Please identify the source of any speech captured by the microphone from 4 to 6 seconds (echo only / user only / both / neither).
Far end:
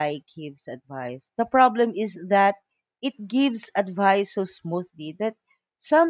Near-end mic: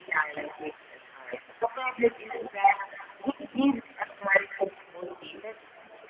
echo only